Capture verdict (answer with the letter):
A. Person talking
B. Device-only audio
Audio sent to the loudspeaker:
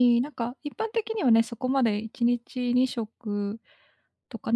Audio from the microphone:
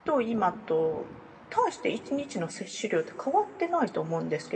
A